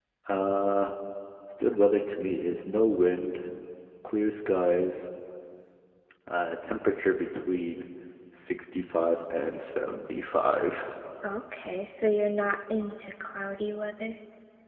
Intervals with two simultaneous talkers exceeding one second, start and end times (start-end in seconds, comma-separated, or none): none